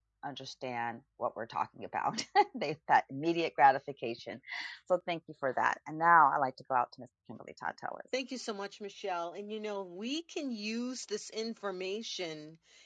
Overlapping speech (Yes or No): No